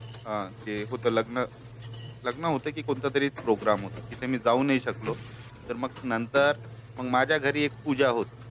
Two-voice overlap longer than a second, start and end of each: none

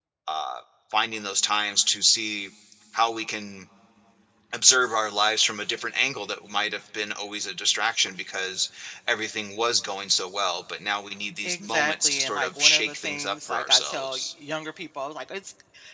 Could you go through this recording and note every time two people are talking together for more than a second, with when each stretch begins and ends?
11.4-14.2

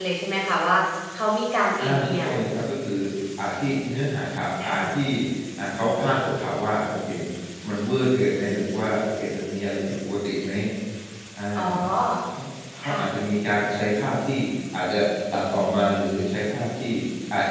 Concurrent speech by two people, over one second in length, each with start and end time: none

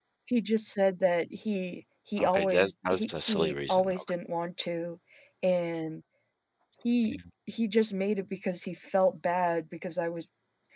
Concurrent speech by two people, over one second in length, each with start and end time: 2.2-3.9

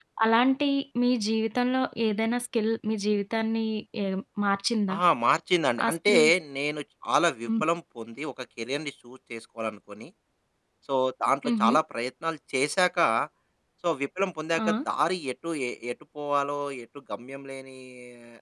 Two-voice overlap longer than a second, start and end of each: none

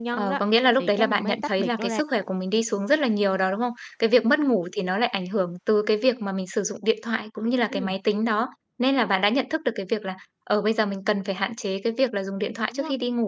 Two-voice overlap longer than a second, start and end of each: 0.8-2.0

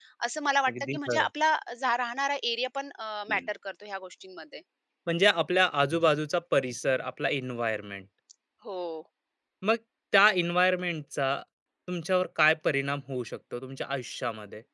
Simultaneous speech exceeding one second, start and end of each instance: none

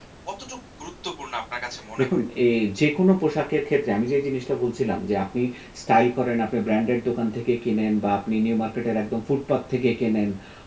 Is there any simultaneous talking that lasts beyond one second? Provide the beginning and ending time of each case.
none

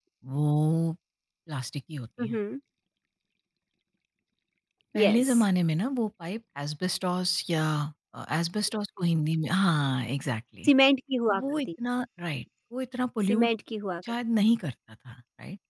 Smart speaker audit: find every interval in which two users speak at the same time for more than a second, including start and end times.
none

